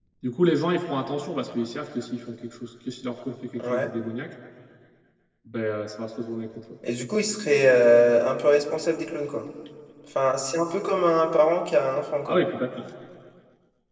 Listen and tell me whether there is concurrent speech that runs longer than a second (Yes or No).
No